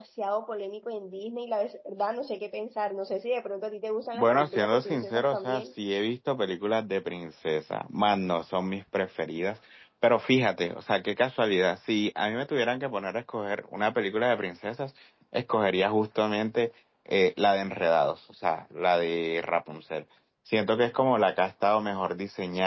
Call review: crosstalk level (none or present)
present